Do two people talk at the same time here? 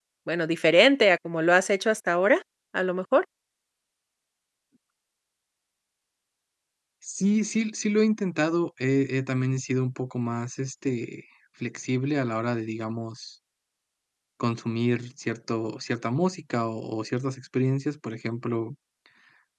No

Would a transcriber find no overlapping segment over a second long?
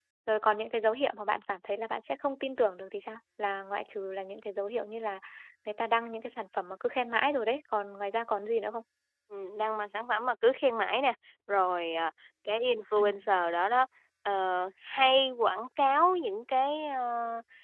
Yes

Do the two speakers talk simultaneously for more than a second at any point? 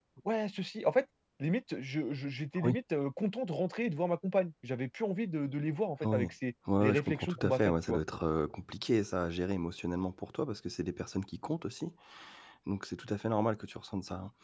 Yes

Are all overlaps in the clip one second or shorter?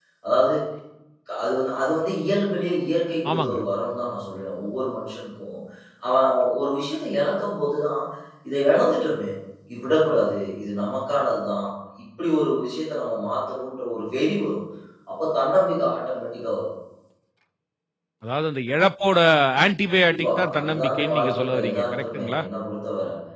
No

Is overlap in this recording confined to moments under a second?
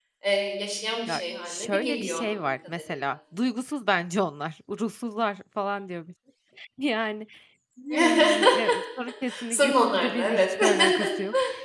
No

